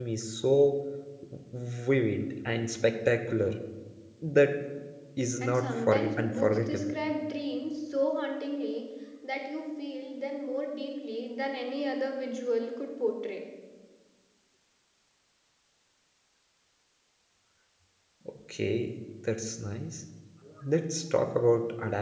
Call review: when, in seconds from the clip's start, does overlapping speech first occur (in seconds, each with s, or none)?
5.4 s